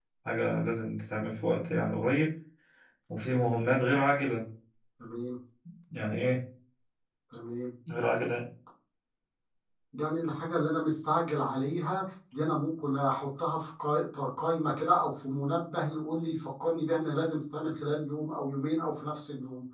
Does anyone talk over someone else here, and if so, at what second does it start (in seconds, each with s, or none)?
none